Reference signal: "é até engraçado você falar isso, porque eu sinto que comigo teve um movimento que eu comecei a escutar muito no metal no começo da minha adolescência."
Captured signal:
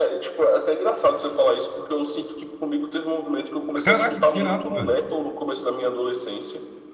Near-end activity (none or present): present